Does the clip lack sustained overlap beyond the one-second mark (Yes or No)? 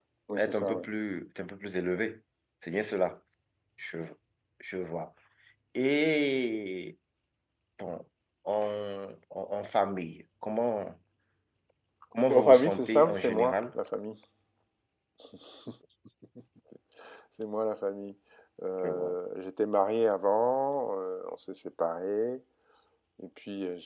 No